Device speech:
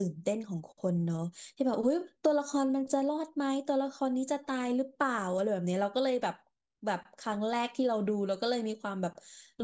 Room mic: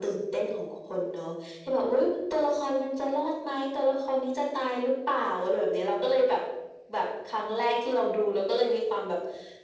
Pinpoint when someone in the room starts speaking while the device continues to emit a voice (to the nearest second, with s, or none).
none